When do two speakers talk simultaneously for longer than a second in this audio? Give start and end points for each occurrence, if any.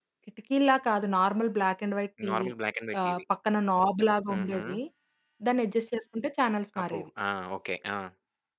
none

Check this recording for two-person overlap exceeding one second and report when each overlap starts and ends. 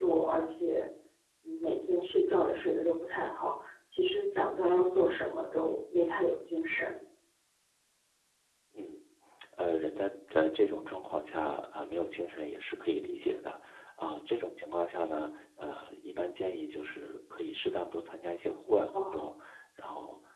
none

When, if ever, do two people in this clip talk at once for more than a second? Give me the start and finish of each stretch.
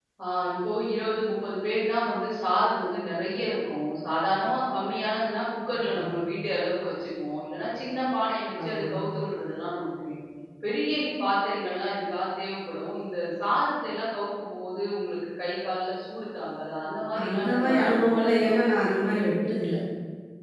17.3-18.5

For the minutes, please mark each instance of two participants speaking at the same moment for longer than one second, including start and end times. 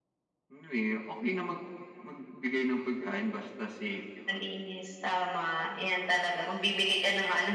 none

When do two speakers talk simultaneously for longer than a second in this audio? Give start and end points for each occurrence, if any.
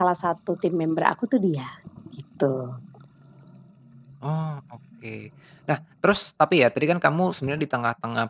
none

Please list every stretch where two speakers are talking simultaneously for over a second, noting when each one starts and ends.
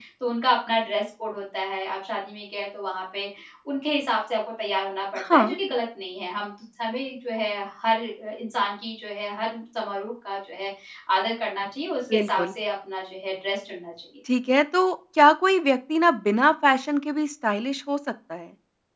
none

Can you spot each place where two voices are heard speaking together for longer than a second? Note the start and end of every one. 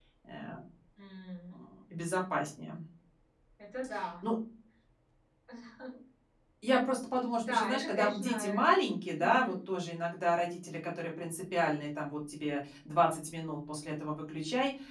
7.4-8.6

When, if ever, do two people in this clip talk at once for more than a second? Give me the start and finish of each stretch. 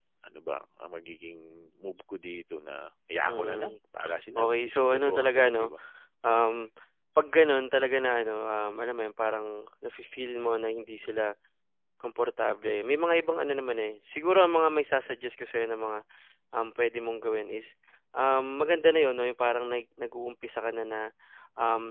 4.4-5.7

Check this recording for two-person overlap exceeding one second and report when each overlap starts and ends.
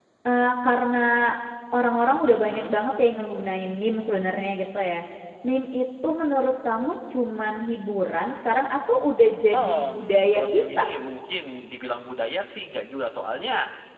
9.5-10.8

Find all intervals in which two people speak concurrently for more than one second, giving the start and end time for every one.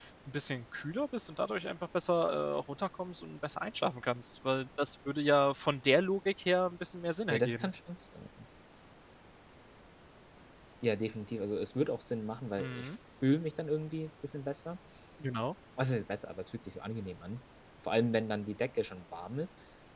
none

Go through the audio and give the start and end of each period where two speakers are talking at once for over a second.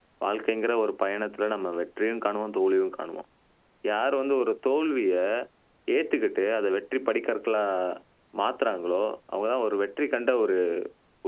none

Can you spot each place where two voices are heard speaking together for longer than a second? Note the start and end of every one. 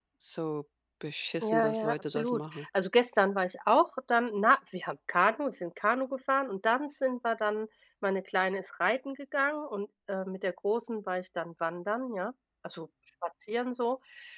1.4-2.7

